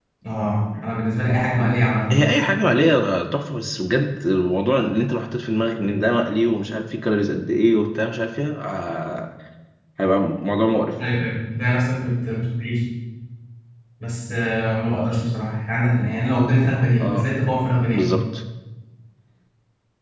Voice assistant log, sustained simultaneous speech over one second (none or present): none